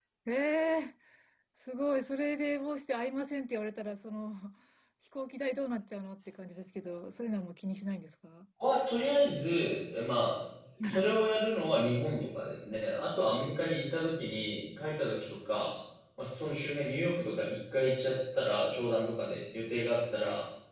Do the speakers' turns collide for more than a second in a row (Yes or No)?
No